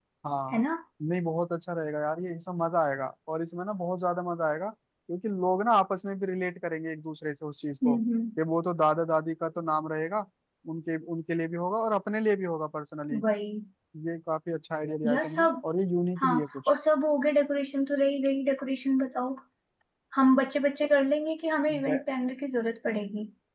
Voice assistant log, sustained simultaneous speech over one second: none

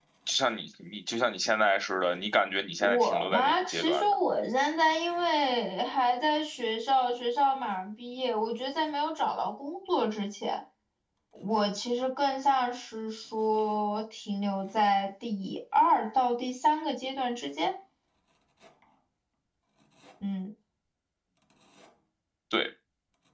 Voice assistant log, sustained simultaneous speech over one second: present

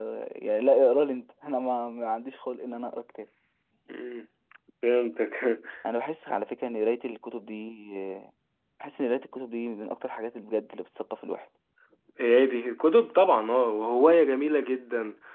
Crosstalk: none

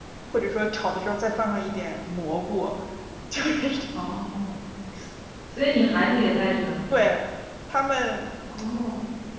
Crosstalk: none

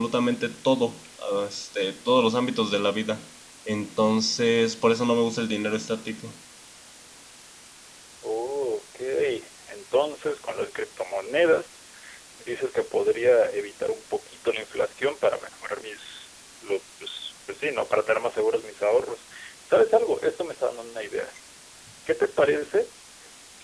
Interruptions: none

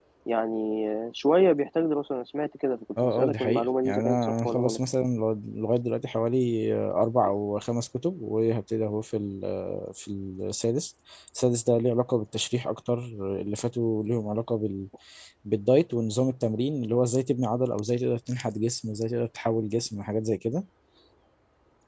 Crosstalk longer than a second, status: present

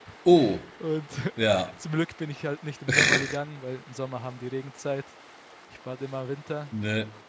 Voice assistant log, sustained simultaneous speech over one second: none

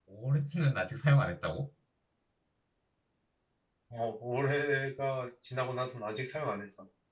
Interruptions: none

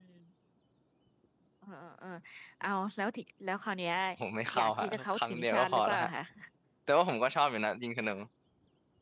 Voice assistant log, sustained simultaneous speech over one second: present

